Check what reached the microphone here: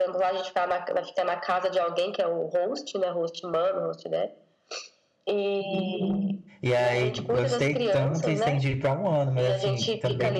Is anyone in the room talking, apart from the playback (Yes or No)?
Yes